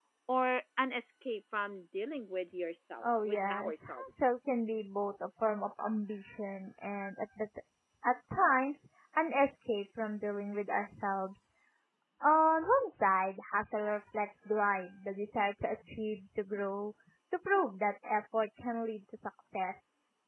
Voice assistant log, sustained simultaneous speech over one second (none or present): present